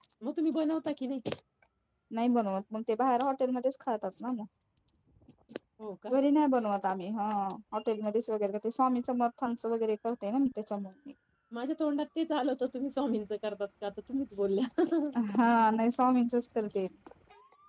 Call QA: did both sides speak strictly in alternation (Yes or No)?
Yes